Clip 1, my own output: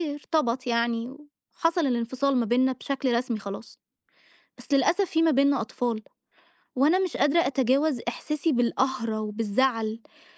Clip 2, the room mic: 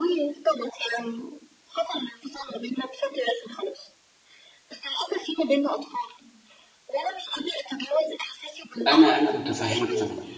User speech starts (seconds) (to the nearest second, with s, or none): 9 s